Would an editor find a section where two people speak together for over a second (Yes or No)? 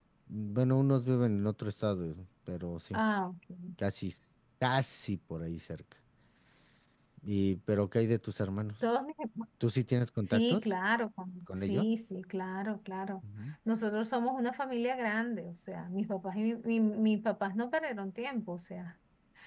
No